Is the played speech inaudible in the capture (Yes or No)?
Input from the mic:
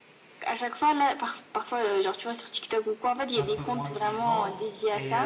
No